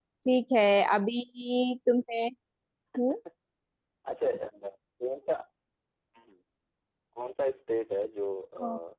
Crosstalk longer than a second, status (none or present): none